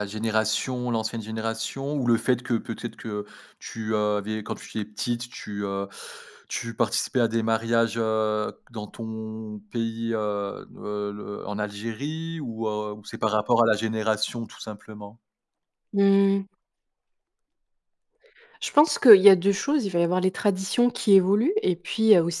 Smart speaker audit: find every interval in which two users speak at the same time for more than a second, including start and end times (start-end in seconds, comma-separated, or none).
none